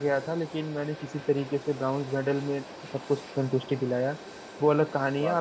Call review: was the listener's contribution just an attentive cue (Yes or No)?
Yes